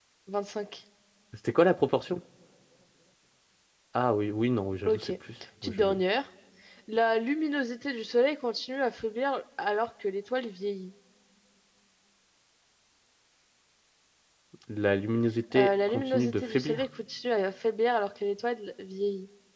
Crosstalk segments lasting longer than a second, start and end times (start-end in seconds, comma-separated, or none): 15.6-16.8